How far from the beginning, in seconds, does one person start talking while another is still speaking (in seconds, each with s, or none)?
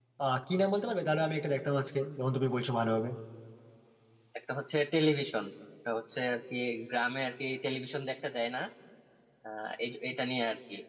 none